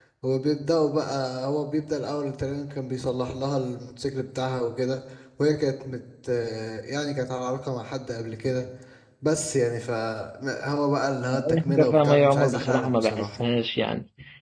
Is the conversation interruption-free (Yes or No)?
No